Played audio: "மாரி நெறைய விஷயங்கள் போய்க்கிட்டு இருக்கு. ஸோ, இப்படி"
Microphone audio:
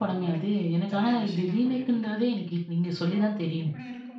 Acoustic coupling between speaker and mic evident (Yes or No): Yes